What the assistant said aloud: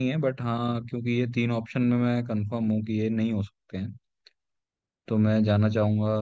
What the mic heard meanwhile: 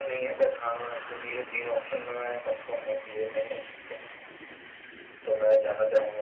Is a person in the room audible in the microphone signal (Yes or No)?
No